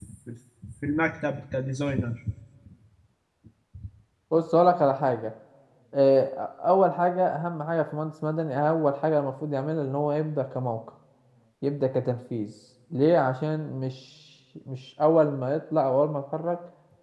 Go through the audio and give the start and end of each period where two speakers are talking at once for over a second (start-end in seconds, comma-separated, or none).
none